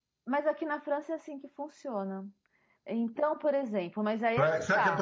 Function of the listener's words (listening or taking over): taking over